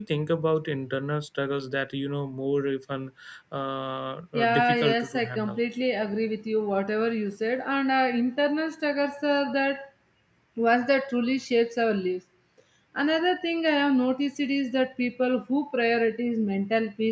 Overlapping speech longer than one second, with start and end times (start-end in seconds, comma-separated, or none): 4.3-5.6